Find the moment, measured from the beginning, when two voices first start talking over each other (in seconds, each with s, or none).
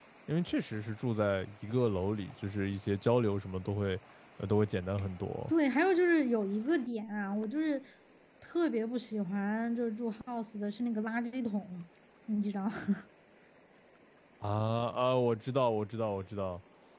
none